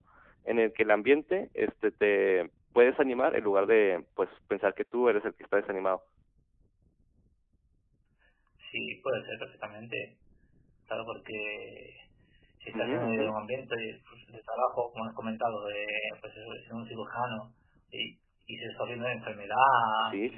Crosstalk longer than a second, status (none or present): none